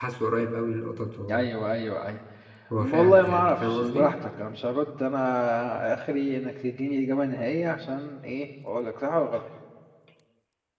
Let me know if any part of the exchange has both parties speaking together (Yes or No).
Yes